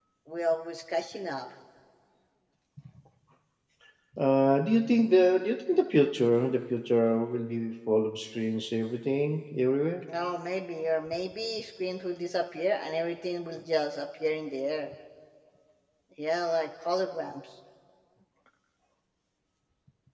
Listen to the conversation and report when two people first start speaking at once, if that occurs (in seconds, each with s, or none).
none